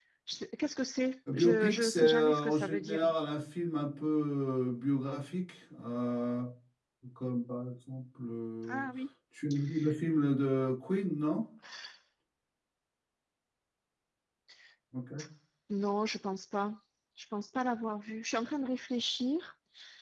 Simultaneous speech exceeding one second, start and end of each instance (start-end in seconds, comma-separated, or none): 1.3-3.1